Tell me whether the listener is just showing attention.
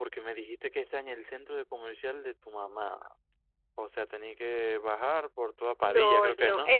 No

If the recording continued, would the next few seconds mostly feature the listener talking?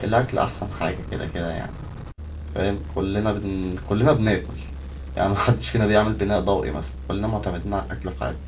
No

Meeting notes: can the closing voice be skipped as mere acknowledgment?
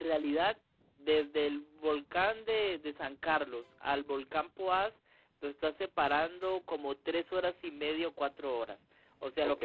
Yes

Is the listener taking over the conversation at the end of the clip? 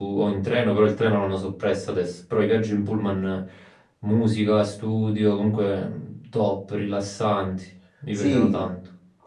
Yes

